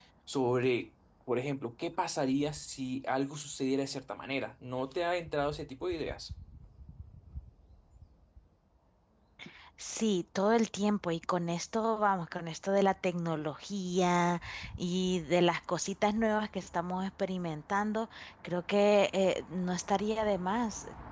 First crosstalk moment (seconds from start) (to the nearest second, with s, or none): none